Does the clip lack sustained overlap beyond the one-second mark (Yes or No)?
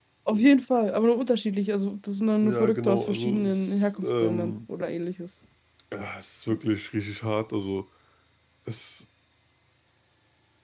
No